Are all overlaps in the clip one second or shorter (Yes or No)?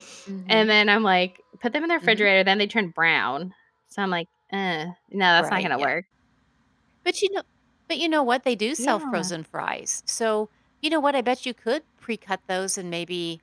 Yes